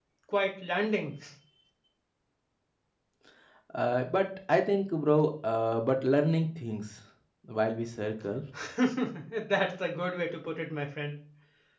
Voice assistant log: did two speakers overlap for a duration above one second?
No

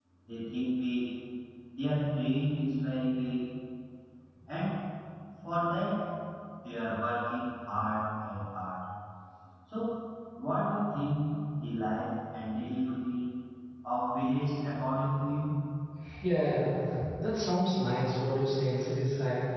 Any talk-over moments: No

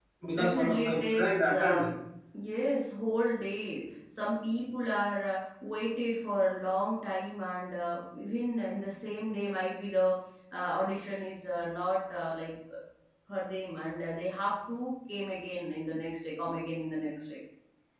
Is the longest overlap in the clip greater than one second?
Yes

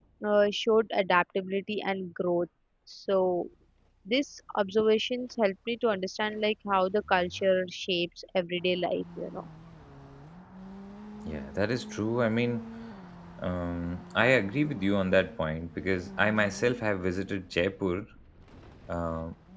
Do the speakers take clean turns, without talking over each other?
Yes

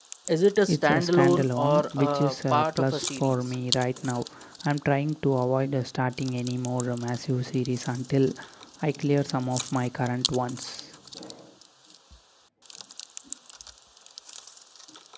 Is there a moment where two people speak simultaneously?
Yes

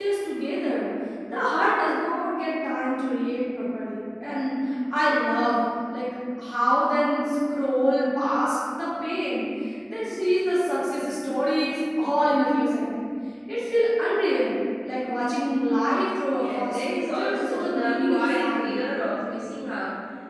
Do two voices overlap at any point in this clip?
Yes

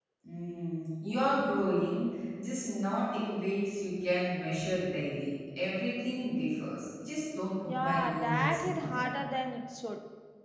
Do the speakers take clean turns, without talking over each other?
No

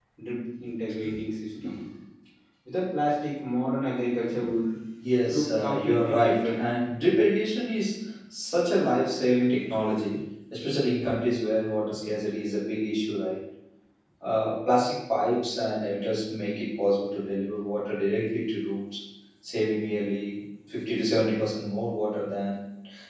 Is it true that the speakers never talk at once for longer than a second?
No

